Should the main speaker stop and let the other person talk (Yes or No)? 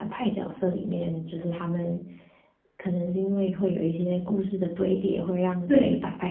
No